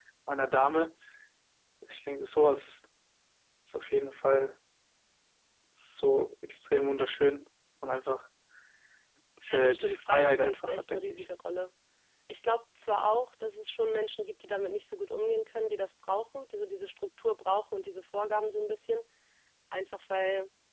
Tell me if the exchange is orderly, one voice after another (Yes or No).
No